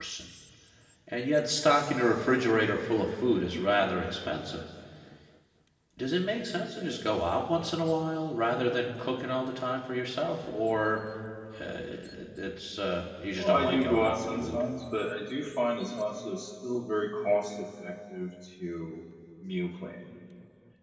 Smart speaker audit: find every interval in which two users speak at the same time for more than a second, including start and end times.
13.3-14.6

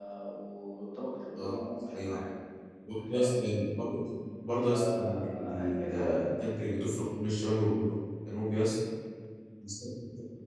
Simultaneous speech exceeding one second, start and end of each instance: 4.9-6.2

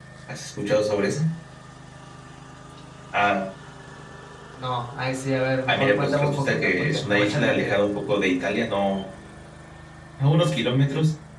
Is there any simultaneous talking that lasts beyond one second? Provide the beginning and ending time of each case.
5.7-7.8

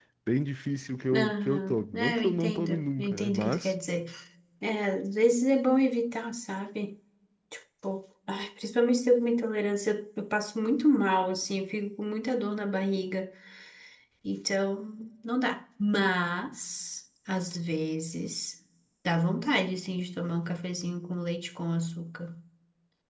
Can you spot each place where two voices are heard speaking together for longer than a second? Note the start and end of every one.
1.1-3.7

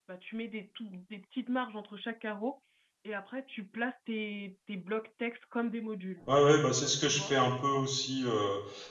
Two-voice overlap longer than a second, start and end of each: none

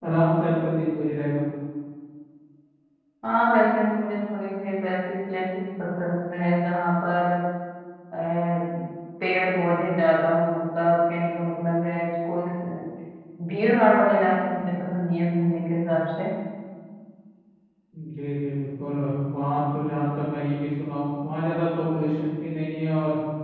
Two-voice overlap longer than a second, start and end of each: none

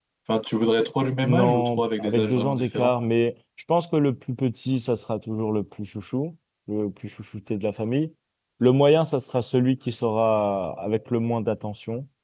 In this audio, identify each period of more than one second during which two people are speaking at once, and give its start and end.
1.2-2.9

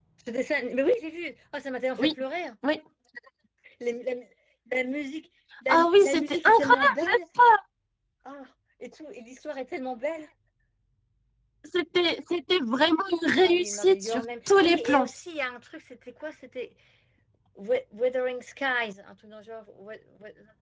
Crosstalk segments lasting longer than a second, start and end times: 5.7-7.0, 13.3-15.1

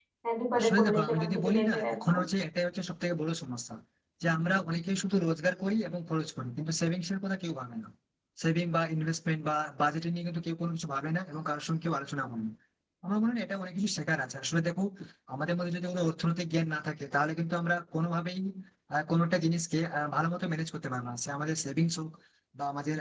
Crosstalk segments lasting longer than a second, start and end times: 0.6-2.2

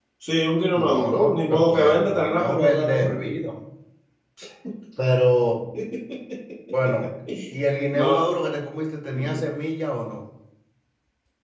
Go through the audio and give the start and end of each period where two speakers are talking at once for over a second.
0.7-3.2

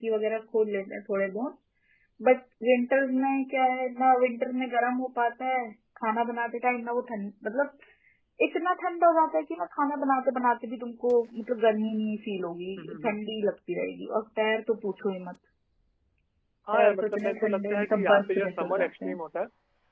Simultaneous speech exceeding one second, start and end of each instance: 16.7-19.2

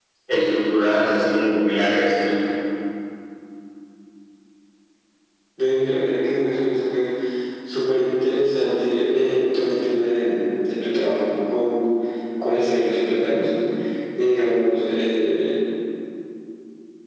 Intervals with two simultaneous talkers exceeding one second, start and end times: none

